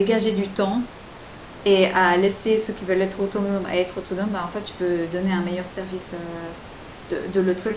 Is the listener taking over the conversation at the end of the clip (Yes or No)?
Yes